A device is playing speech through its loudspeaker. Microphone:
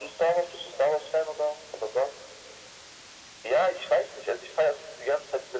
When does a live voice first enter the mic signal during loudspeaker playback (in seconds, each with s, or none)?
none